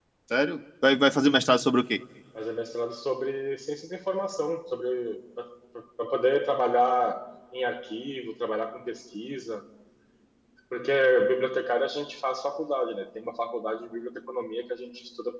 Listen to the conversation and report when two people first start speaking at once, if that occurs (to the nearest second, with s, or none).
none